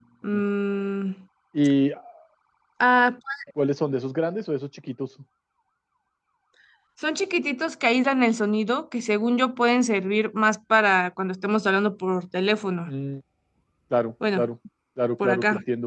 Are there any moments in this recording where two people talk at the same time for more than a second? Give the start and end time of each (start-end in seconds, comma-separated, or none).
none